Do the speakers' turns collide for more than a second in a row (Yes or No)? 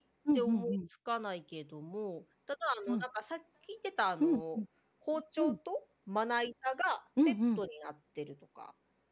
No